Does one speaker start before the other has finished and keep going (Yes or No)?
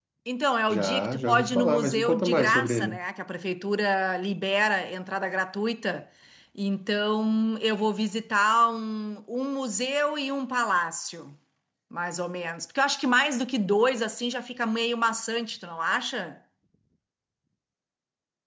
Yes